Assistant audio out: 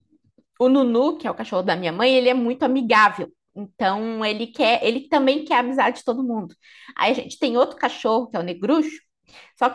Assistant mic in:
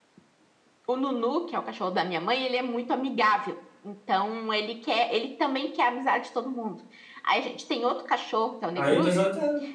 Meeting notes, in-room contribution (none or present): present